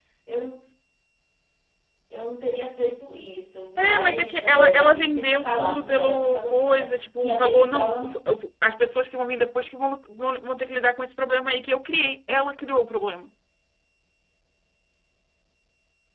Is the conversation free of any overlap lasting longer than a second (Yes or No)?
No